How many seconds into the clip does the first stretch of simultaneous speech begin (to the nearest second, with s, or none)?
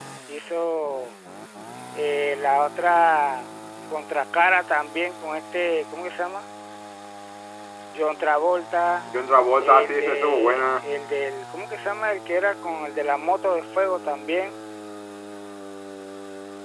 10 s